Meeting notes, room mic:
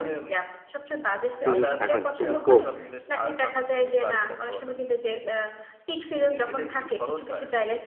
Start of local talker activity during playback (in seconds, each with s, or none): 1.4 s